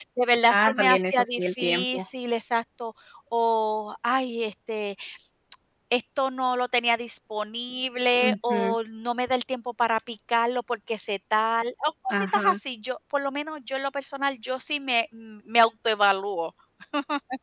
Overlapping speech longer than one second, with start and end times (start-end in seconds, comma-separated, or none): 0.5-2.0